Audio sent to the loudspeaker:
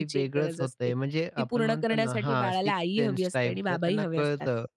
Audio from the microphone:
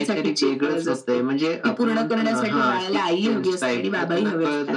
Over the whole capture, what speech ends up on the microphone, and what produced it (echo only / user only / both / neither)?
echo only